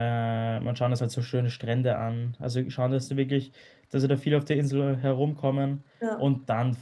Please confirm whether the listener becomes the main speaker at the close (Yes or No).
No